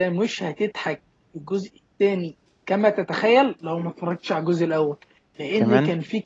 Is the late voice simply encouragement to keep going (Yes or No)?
Yes